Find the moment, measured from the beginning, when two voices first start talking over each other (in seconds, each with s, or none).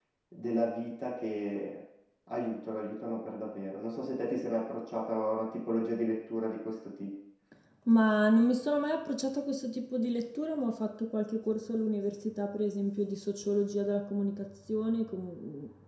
none